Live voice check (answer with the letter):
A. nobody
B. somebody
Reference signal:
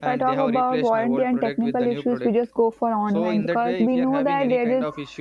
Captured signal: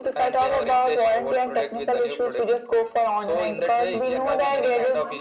B